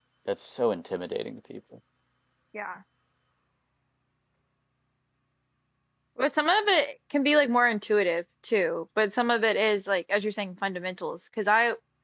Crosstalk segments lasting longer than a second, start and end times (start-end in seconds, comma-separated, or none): none